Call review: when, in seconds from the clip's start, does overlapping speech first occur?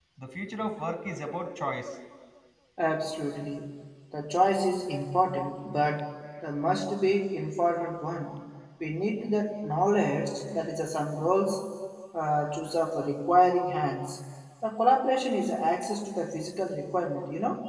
none

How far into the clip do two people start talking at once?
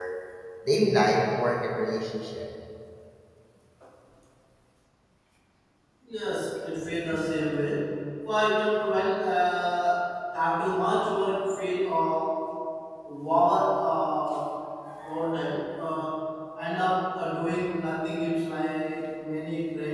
none

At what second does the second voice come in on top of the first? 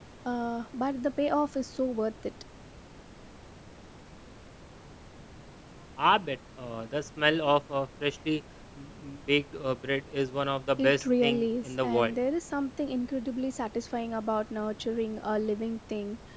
10.8 s

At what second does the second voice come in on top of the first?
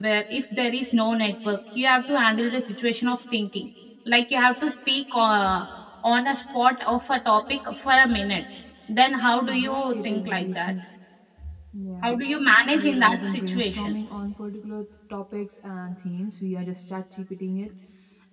9.5 s

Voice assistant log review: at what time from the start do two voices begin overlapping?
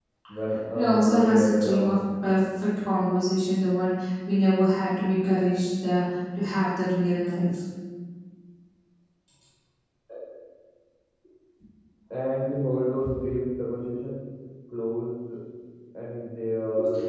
0.7 s

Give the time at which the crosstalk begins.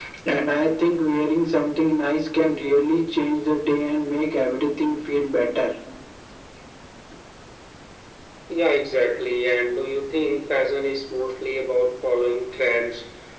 none

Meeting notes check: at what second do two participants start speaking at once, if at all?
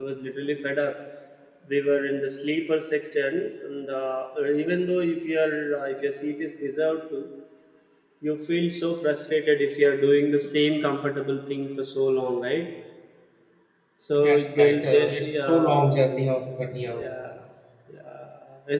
14.2 s

